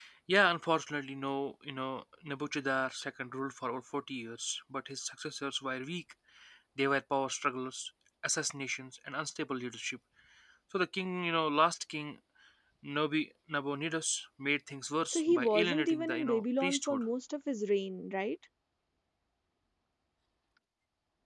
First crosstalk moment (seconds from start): 15.1 s

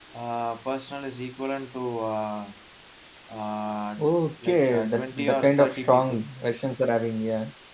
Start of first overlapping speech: 4.5 s

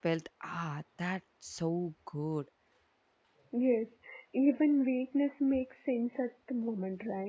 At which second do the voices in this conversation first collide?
none

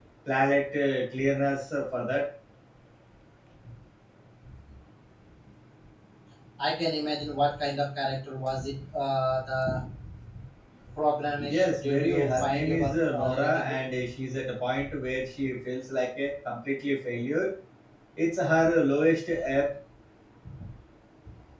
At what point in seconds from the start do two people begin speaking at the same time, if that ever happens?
11.5 s

